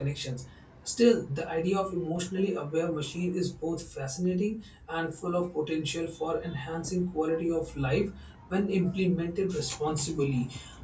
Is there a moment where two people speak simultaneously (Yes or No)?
No